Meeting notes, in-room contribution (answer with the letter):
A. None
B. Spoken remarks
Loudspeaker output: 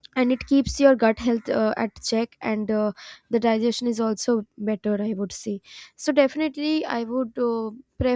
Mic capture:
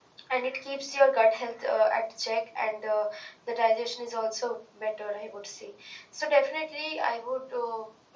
A